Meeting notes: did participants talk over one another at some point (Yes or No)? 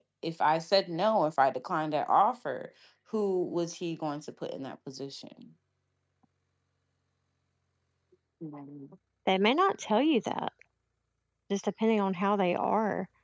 No